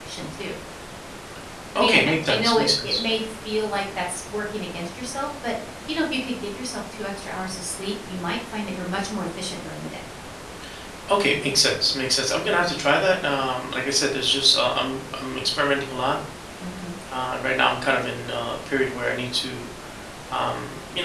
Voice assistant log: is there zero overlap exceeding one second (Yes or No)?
No